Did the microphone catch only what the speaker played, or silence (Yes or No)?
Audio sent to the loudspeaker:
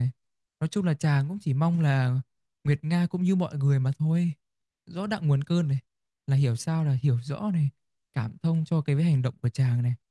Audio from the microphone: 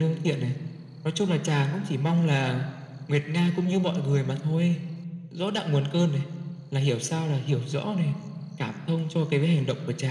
Yes